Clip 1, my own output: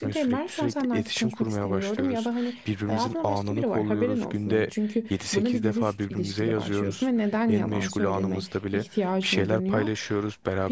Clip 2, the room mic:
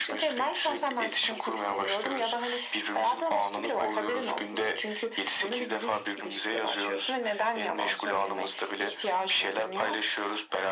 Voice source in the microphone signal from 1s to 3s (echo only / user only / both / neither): echo only